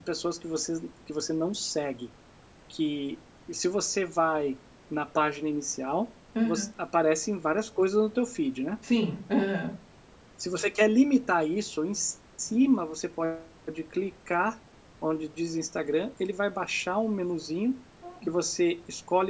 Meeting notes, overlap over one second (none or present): none